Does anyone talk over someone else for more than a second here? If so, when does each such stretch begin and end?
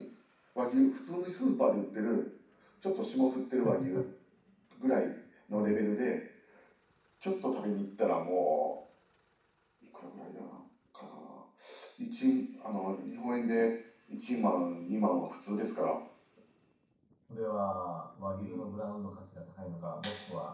none

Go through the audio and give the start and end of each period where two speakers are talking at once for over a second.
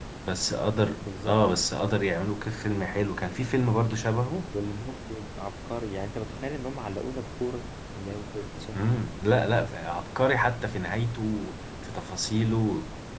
none

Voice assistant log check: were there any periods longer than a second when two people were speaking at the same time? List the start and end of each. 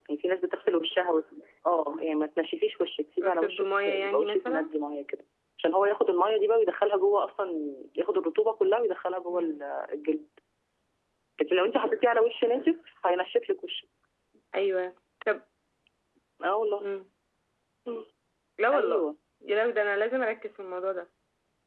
3.2-4.7

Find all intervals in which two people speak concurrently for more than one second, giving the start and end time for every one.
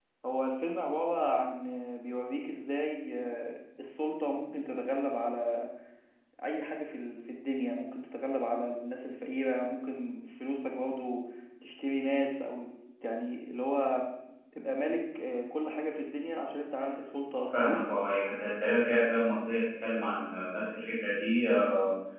none

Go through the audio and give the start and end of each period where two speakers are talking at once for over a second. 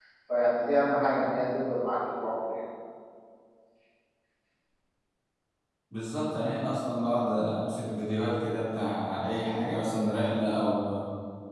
none

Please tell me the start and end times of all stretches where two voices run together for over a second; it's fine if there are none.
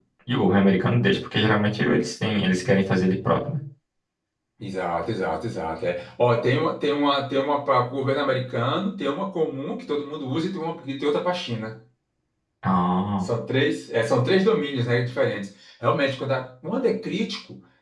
none

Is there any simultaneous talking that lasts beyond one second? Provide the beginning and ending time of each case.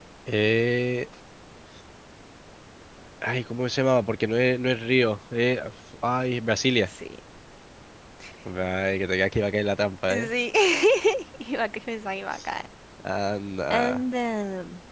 none

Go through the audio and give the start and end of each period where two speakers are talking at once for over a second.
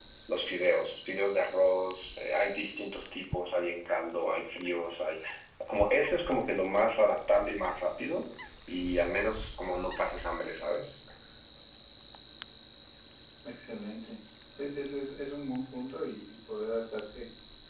none

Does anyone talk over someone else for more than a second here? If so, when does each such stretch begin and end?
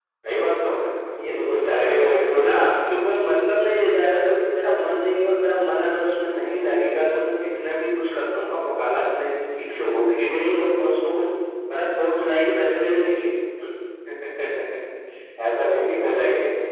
1.2-2.5

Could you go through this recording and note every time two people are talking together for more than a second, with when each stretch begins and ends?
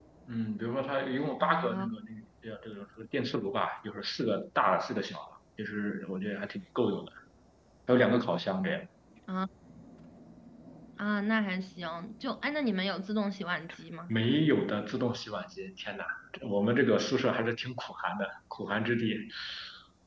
none

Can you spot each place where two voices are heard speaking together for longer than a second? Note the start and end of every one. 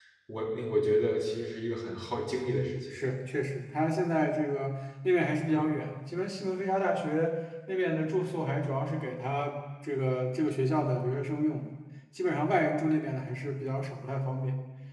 none

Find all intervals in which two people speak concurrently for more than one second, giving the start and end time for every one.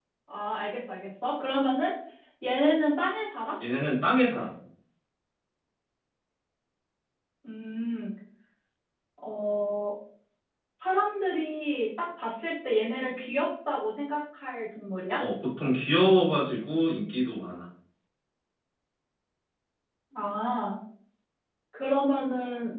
none

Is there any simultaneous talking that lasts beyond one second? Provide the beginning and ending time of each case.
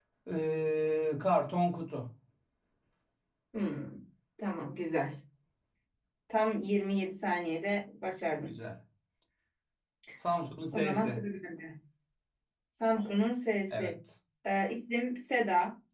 none

